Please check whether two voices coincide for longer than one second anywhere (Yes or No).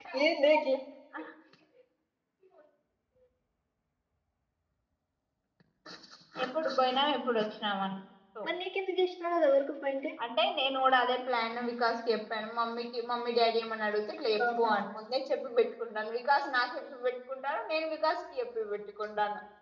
No